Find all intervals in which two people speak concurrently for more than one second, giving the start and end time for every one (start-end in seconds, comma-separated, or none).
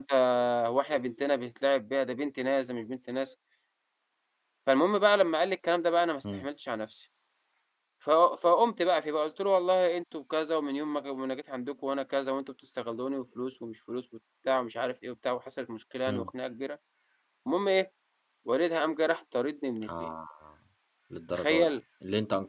none